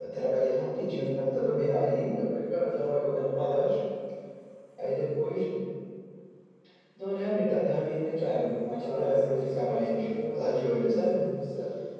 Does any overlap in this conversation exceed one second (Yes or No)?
Yes